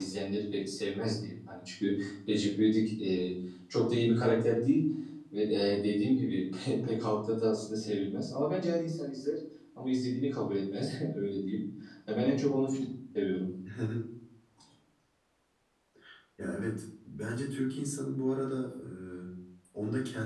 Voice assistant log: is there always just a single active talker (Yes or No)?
Yes